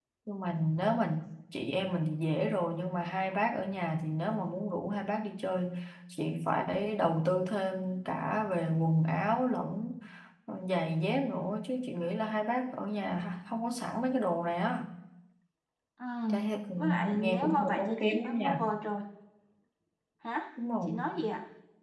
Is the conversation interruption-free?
No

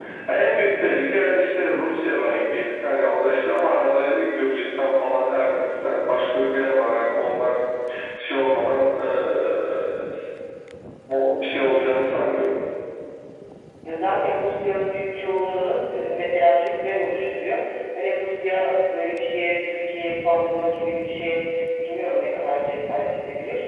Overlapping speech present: No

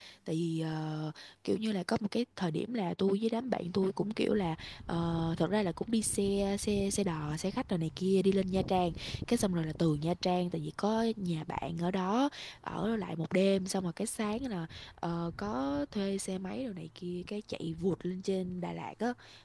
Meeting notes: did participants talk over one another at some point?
No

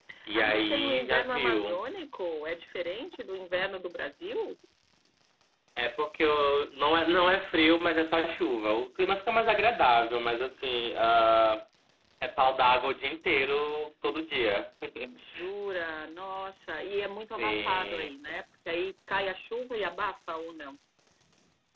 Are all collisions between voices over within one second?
No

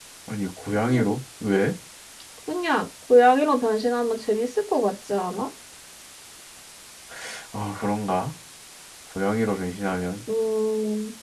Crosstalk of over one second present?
No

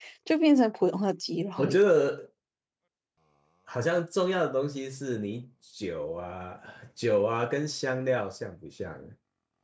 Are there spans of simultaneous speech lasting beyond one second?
No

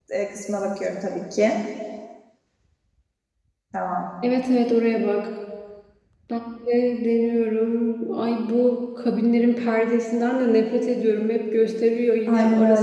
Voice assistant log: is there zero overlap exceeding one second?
Yes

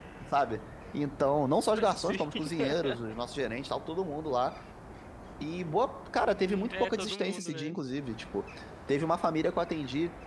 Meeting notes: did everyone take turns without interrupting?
No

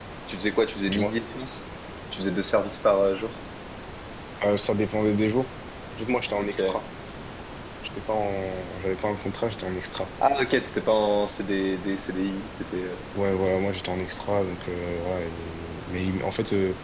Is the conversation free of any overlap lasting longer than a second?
Yes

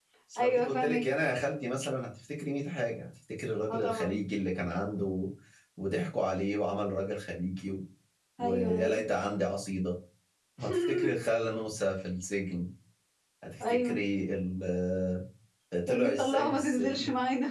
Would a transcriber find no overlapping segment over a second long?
No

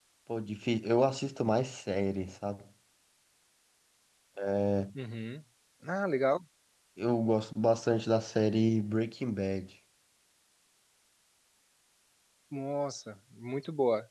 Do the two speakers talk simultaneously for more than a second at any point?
No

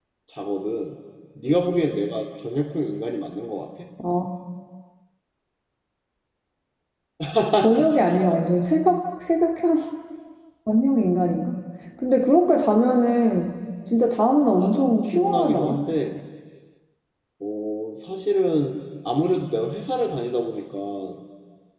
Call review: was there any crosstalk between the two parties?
Yes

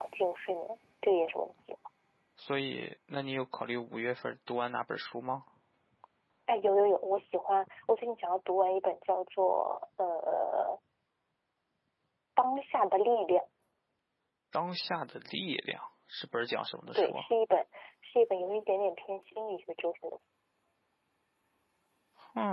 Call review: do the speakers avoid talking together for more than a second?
Yes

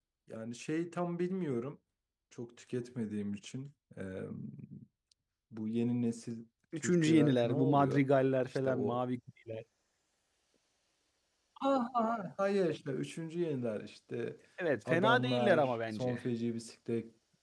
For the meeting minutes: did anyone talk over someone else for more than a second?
Yes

